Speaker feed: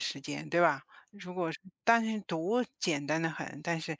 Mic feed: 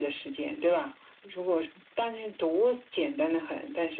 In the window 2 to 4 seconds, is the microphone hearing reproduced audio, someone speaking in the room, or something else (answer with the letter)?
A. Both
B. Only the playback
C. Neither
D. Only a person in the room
B